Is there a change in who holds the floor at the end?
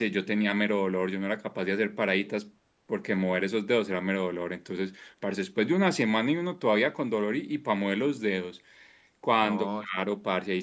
No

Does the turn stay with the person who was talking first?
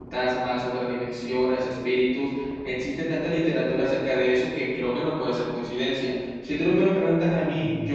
No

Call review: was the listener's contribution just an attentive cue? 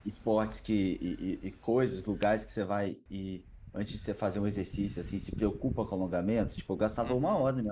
No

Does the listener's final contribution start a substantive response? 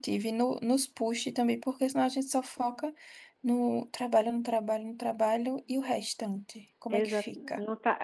Yes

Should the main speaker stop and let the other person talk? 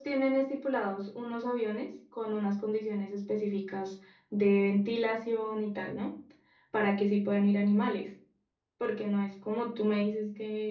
No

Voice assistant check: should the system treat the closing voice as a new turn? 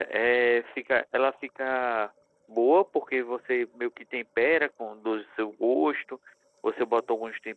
No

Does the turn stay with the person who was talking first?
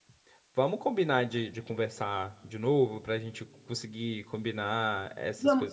No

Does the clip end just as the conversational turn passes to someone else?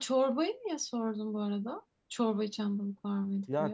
Yes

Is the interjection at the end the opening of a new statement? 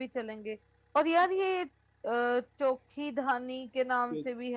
Yes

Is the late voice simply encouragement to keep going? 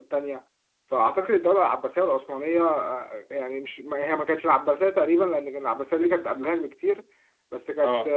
Yes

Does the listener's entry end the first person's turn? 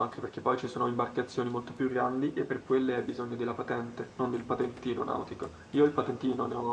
No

